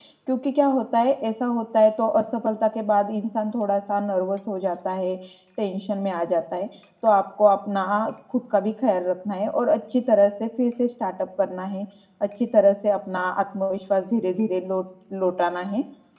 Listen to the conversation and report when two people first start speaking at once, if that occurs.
none

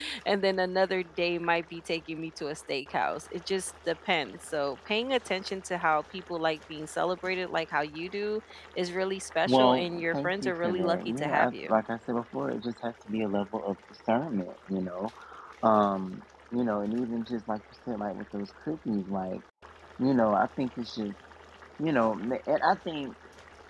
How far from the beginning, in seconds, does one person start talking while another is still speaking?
9.5 s

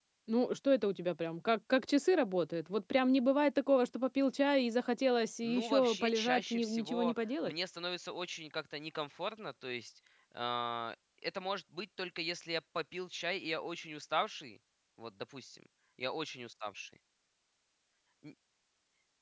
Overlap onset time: 5.4 s

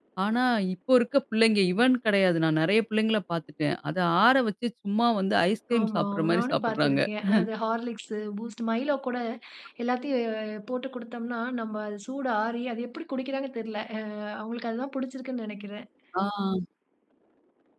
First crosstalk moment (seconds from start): 5.7 s

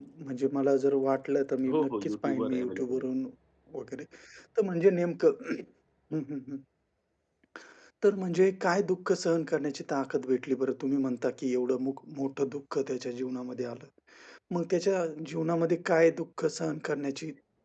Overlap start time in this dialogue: 1.7 s

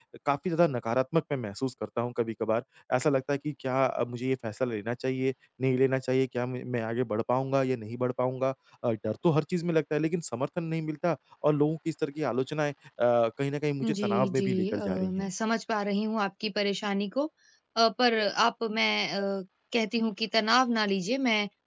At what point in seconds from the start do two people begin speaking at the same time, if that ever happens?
13.8 s

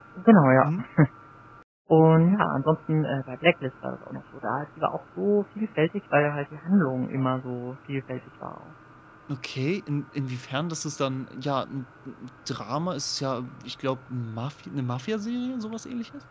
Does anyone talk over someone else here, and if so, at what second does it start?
none

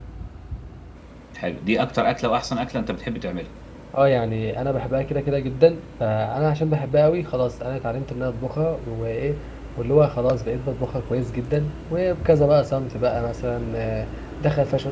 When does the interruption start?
none

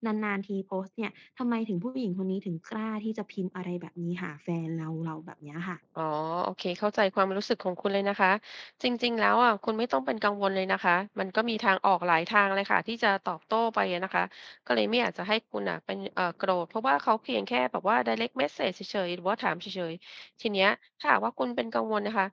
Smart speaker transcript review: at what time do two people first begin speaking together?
none

